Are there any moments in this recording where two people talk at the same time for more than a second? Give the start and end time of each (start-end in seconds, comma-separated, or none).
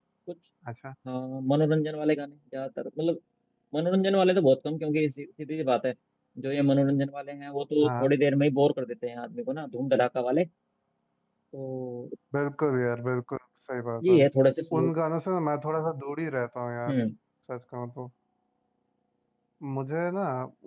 none